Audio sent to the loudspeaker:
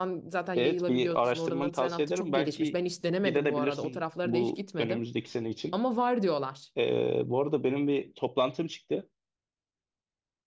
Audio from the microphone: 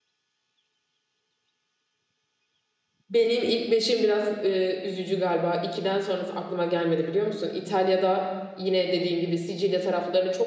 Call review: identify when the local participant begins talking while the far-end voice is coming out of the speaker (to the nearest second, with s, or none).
3 s